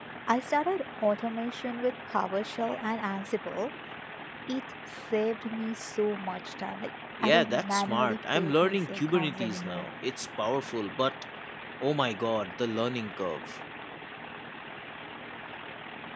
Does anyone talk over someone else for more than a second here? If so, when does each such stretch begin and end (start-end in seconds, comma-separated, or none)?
7.2-9.9